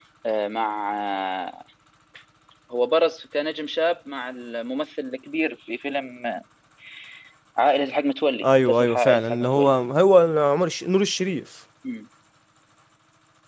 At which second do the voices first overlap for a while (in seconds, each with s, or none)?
8.4 s